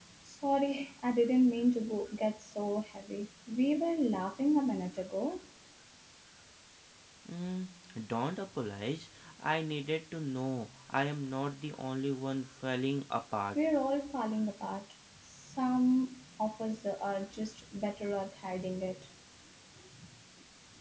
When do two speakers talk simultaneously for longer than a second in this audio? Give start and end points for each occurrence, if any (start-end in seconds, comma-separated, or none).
none